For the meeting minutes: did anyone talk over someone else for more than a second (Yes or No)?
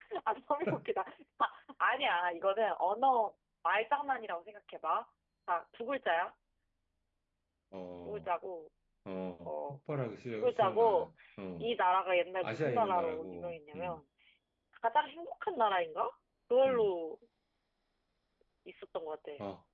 Yes